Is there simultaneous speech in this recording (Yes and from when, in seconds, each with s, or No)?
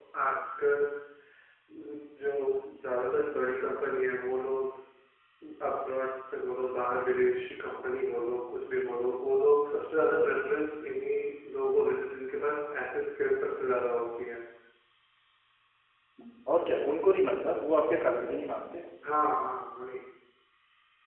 No